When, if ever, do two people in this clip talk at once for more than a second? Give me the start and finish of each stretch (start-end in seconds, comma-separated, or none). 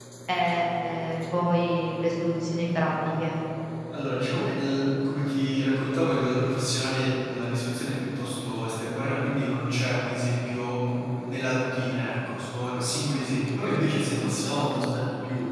none